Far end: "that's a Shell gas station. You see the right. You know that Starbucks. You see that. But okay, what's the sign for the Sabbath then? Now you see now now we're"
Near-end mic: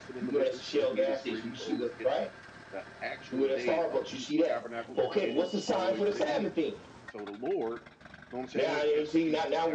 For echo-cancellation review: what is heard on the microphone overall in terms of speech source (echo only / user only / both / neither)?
both